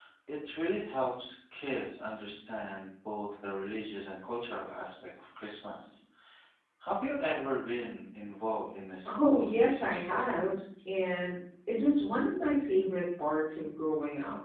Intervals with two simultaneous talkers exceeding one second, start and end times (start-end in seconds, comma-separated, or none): 9.1-10.5